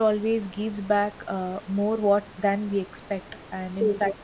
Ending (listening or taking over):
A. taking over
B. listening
B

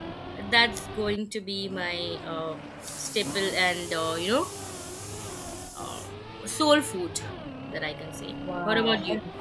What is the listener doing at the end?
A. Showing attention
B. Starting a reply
B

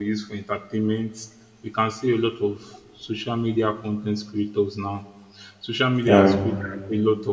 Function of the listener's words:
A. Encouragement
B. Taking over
A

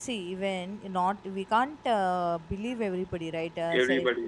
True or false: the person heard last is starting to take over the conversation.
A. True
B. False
B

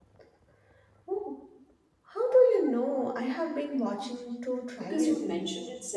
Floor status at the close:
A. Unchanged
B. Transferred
B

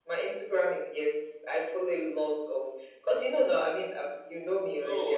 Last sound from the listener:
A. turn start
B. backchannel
A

